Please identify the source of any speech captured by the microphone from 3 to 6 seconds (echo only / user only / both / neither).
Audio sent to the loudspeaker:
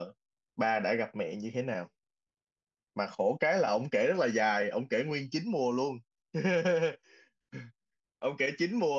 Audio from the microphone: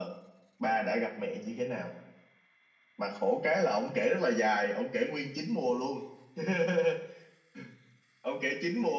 echo only